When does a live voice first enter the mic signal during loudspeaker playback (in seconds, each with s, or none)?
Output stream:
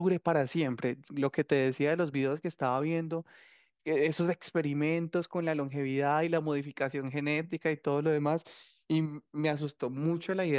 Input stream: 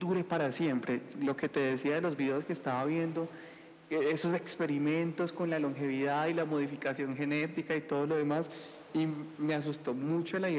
none